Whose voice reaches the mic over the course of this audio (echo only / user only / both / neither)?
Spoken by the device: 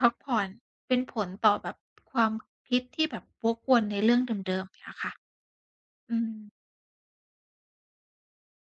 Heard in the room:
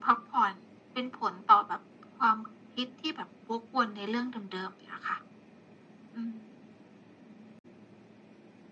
echo only